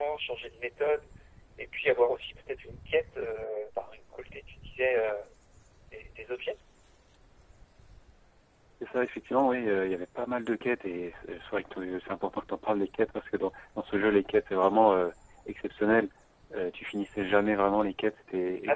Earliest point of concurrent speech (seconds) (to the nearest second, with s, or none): none